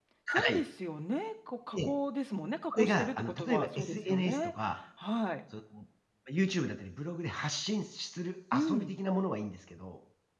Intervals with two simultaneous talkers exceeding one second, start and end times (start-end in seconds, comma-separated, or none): 2.7-4.4